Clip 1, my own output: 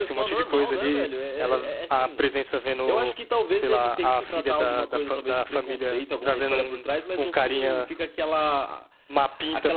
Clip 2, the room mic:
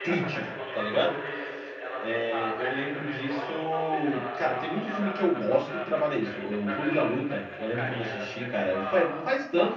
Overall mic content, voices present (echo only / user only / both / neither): both